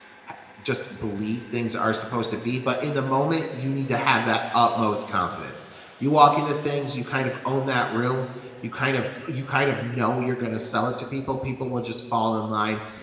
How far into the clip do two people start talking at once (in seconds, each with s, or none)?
none